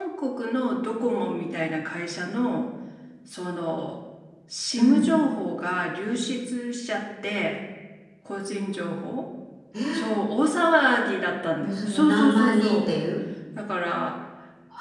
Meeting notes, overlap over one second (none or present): present